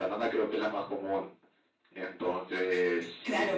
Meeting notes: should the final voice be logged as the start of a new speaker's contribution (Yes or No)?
Yes